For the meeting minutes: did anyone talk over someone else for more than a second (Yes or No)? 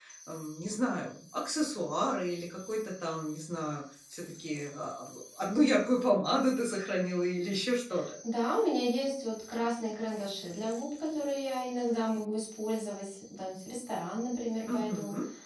No